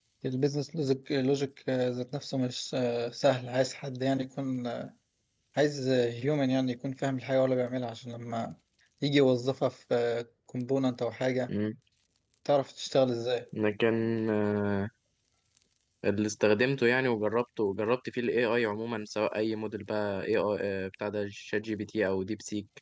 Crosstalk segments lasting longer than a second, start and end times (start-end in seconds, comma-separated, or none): none